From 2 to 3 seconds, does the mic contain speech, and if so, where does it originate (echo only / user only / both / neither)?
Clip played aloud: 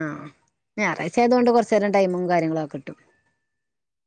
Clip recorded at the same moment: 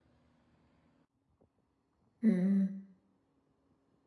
user only